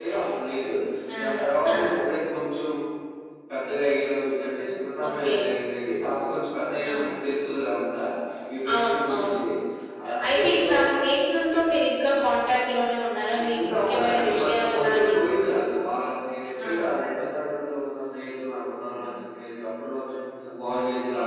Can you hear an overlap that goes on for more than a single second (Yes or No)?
Yes